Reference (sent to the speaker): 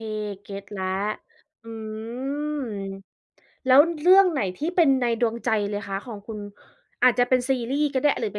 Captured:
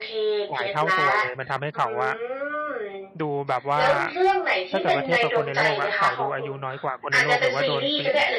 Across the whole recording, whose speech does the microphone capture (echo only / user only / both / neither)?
both